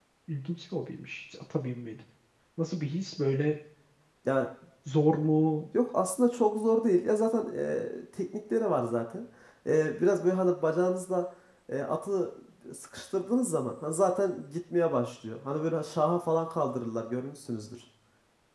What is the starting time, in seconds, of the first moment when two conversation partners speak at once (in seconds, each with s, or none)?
none